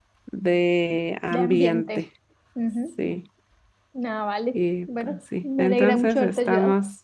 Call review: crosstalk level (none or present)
present